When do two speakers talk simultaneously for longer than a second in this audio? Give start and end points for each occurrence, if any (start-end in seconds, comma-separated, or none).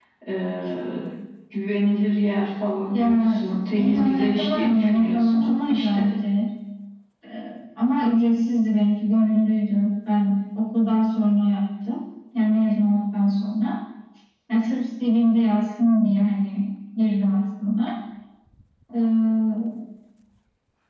2.9-6.1